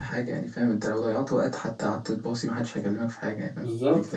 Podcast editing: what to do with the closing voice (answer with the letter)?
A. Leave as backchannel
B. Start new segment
B